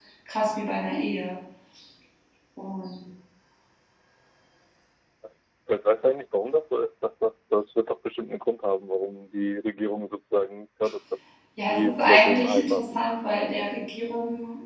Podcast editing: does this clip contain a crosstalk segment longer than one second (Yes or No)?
Yes